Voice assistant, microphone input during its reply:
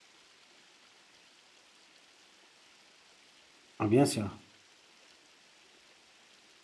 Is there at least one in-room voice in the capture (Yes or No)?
Yes